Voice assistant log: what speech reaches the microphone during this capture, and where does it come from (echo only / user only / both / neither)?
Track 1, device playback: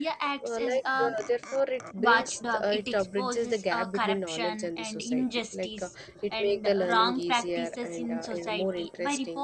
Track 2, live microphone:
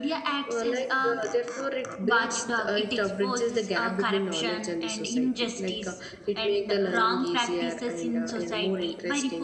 echo only